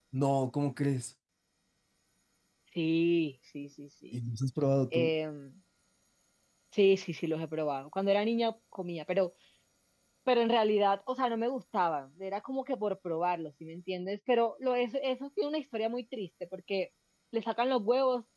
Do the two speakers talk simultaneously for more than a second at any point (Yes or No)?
No